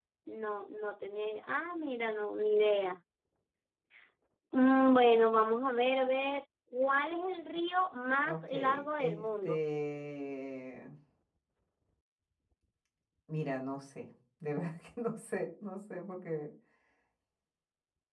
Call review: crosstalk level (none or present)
present